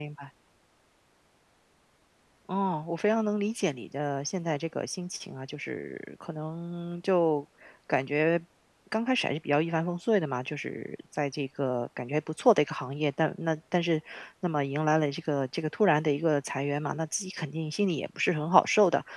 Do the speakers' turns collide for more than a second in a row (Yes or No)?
No